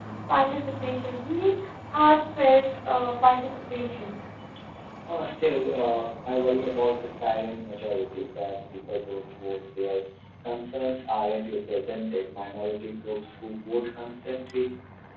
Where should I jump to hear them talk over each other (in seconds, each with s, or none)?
none